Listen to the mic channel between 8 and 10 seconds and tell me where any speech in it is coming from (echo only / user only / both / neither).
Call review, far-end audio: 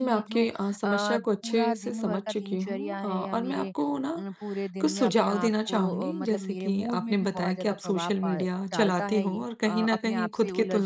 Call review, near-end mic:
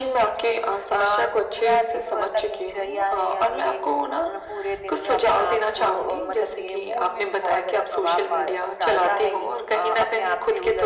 echo only